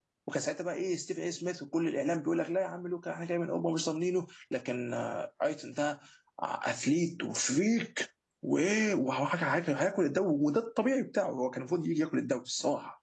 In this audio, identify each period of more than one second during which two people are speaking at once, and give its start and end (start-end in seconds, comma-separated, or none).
none